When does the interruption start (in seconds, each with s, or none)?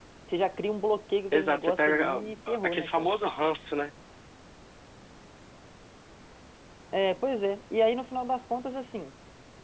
1.3 s